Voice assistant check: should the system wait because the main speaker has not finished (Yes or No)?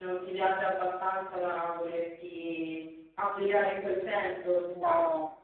No